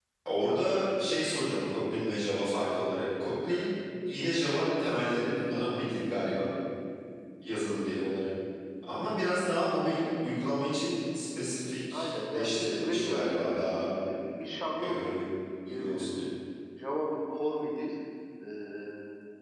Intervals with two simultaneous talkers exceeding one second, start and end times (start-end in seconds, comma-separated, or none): 11.9-13.7